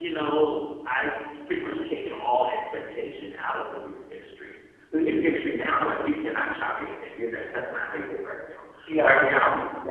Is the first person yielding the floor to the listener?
No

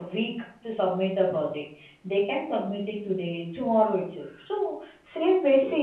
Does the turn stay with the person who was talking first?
Yes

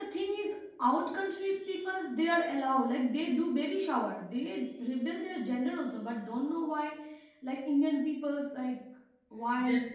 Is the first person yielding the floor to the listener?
Yes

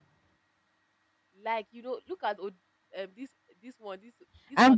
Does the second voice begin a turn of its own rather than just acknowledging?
Yes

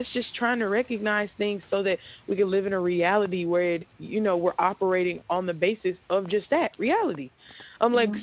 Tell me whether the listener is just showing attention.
Yes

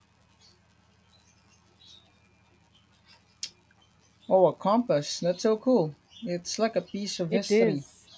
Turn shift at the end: Yes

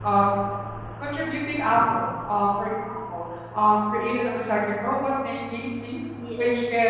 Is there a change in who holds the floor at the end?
No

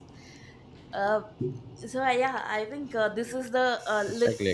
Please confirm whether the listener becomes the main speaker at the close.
No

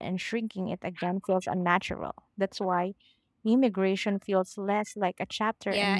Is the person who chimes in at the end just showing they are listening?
No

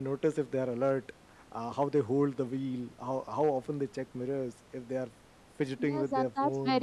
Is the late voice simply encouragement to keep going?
No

